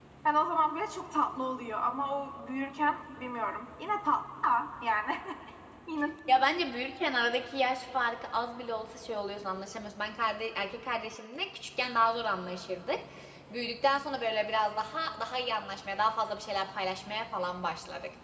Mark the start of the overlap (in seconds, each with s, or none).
none